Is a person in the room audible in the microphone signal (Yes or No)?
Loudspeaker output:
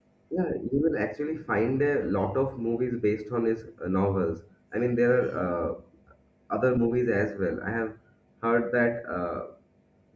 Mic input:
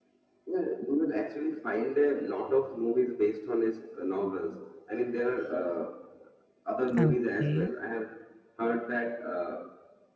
Yes